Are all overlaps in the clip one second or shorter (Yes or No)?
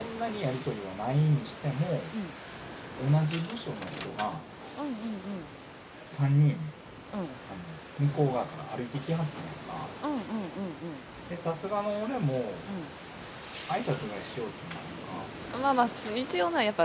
Yes